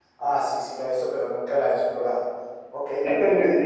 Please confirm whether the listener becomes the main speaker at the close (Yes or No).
Yes